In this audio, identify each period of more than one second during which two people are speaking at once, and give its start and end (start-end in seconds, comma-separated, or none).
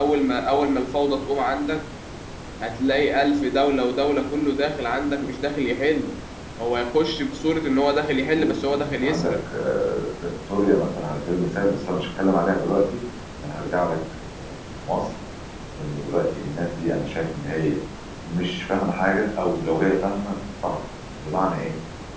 8.1-9.3